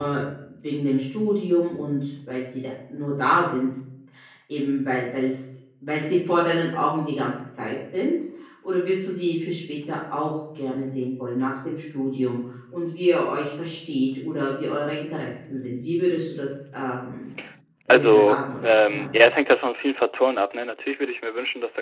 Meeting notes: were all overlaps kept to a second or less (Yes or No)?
No